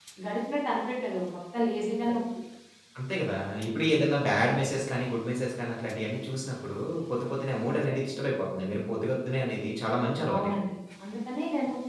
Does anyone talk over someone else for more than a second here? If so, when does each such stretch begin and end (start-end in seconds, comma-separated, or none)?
none